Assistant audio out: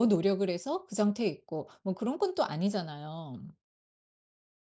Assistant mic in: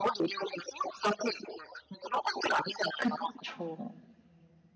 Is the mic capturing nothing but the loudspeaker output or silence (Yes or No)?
No